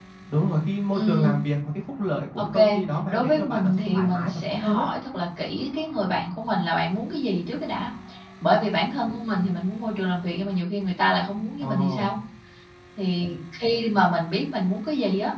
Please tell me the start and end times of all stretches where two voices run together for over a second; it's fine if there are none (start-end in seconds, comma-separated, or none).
3.1-4.8